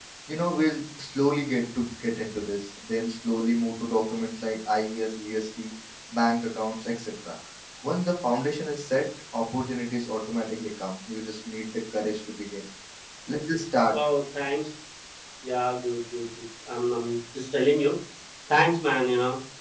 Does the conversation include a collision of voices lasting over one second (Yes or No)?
No